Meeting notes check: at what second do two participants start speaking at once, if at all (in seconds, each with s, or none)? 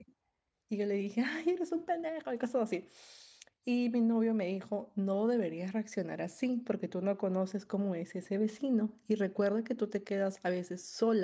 none